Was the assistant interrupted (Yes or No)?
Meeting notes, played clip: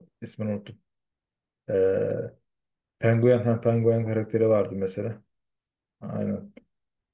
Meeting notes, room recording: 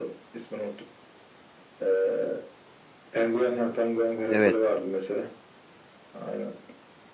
Yes